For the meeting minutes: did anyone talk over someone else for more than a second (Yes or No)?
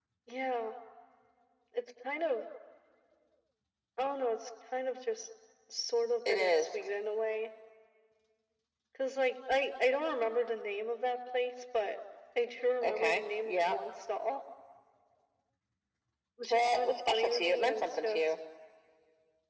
Yes